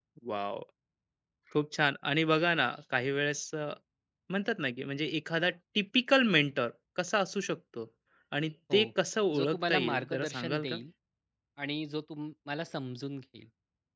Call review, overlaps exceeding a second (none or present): present